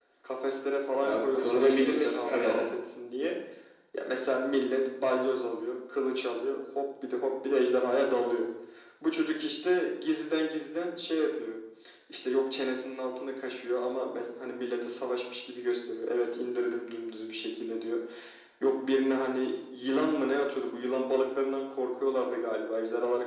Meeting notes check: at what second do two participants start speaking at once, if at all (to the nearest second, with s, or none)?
1 s